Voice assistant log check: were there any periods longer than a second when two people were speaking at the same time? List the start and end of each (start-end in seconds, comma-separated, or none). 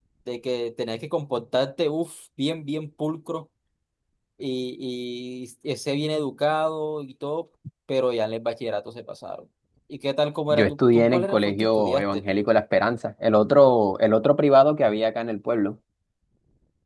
10.6-12.2